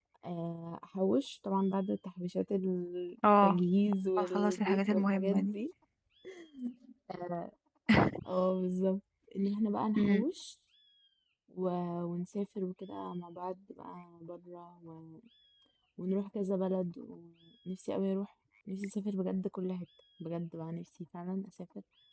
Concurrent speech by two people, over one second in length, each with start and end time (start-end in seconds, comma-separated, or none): 4.2-5.5